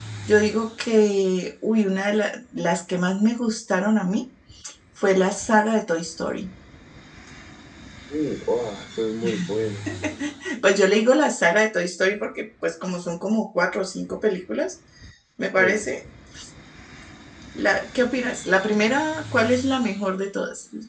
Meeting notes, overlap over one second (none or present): none